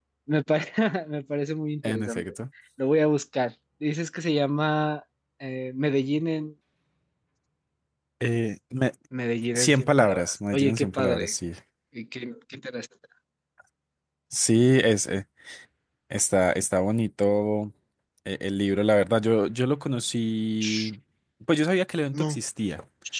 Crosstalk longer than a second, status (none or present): present